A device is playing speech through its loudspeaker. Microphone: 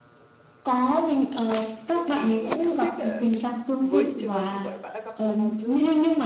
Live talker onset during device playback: 1.9 s

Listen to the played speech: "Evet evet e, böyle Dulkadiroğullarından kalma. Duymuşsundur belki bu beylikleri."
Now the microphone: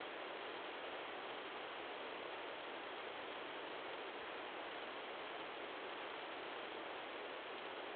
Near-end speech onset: none

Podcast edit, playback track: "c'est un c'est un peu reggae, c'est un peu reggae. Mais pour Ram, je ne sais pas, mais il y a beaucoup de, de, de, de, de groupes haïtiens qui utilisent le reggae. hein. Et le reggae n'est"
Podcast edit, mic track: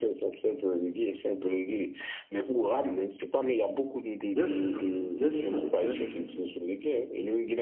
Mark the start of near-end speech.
4.3 s

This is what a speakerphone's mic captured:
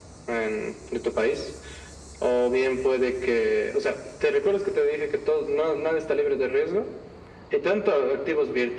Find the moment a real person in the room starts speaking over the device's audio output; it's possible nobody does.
none

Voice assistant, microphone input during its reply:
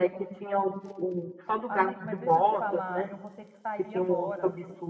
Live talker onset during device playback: 1.7 s

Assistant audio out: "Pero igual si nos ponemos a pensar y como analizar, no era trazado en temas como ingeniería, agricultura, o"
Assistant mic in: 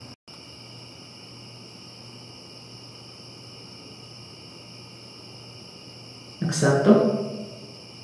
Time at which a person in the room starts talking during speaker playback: 6.4 s

